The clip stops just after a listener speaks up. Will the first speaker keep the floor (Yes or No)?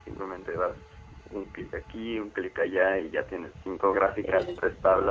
Yes